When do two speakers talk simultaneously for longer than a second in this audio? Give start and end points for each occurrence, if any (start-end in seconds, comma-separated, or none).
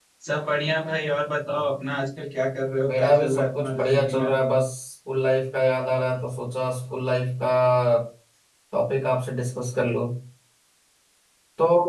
2.9-4.3